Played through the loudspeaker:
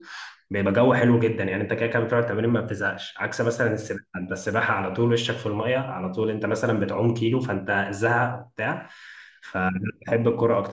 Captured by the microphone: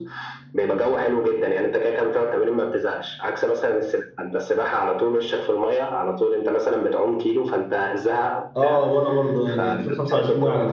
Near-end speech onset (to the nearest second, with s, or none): 9 s